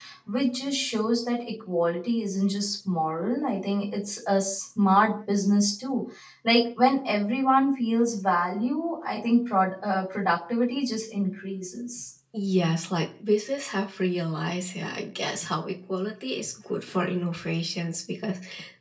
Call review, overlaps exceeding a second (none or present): none